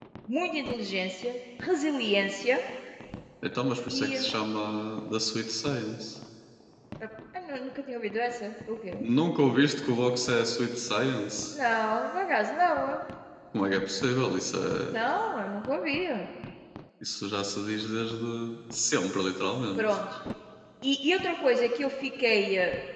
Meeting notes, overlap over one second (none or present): none